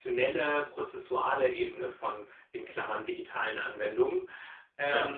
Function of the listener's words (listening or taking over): listening